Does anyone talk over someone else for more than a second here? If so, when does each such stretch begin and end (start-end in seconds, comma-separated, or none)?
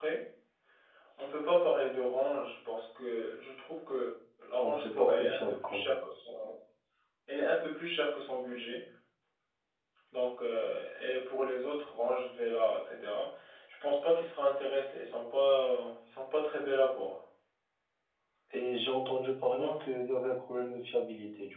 4.6-6.0